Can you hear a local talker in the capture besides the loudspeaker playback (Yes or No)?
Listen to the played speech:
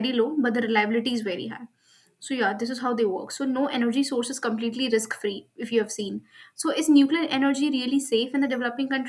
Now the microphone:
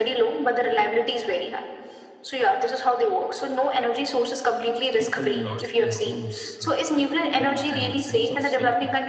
Yes